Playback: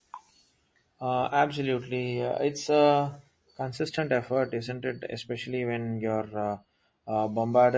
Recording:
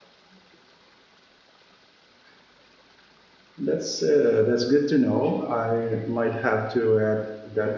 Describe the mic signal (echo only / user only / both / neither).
user only